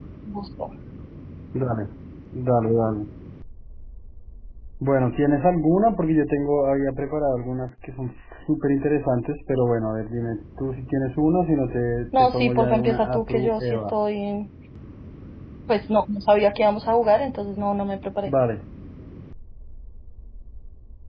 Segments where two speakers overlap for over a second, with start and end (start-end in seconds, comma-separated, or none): 12.2-13.9